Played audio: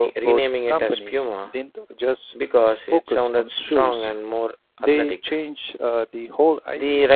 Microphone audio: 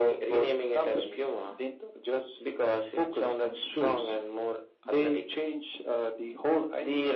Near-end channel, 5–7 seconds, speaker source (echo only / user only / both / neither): echo only